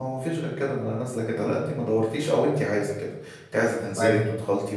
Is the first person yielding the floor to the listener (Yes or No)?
No